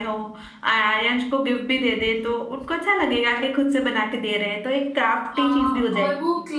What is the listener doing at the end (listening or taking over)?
taking over